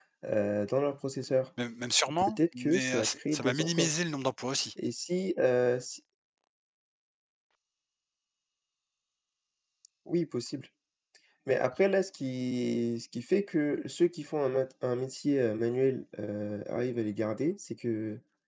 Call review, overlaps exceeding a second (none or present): present